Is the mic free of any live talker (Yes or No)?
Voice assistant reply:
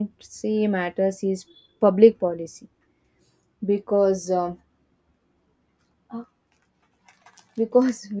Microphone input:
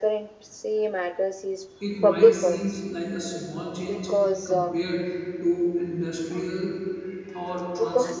No